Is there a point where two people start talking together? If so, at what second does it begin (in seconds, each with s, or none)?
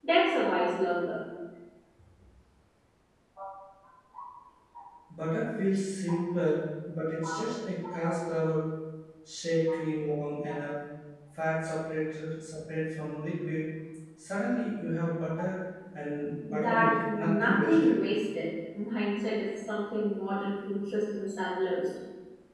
16.5 s